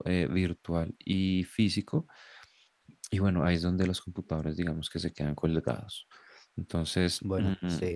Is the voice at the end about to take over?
No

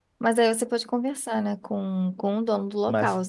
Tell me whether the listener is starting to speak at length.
Yes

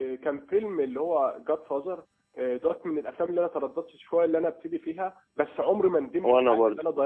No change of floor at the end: Yes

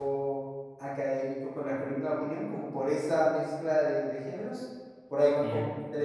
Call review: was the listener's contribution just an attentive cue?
Yes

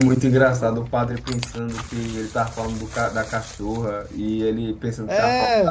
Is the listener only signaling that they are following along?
Yes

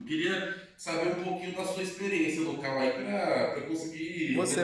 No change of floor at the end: No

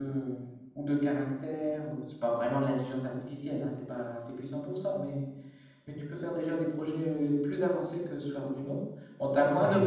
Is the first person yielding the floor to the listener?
No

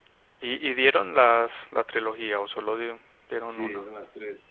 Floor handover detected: Yes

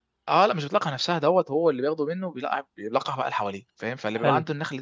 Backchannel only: Yes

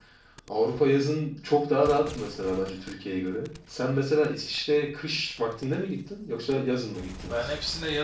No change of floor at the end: No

